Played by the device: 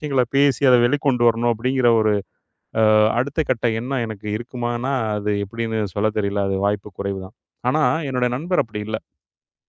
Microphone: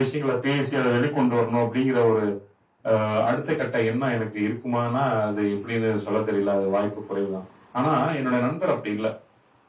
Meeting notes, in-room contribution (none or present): none